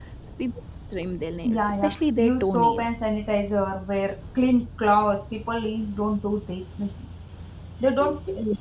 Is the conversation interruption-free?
No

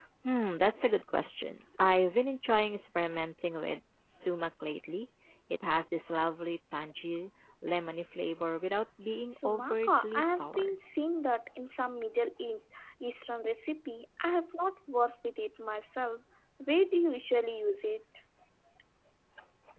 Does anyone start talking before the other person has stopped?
Yes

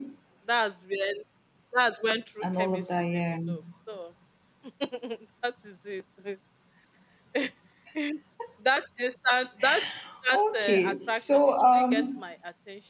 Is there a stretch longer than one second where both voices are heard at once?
Yes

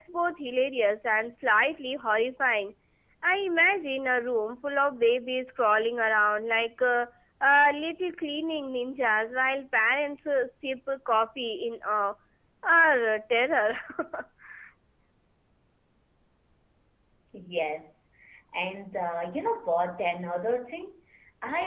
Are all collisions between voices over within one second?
Yes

